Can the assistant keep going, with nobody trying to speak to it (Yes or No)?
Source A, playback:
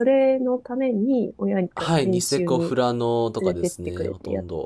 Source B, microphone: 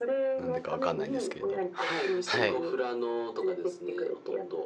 No